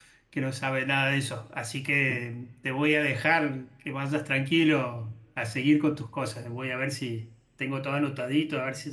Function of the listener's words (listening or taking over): listening